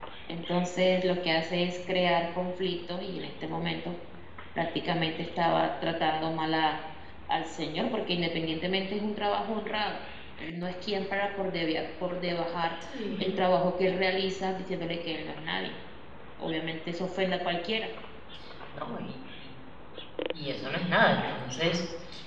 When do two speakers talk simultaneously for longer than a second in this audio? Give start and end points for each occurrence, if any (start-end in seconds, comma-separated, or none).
none